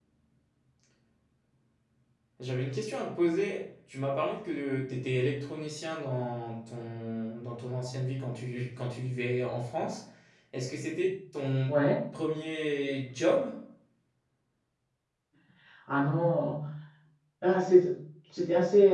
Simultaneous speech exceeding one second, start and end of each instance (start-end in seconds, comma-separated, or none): none